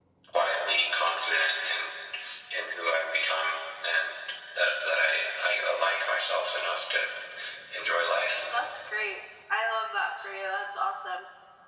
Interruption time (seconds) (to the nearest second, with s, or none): none